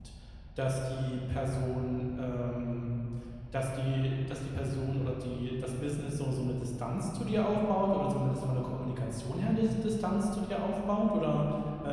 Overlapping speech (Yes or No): No